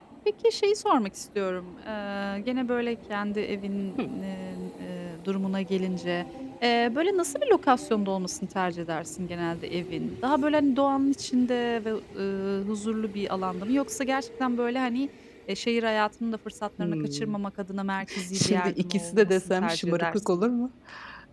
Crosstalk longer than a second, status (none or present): present